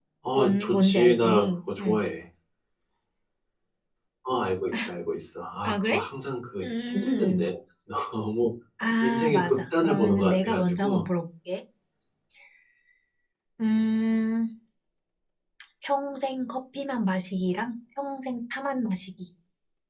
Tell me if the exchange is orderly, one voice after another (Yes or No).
No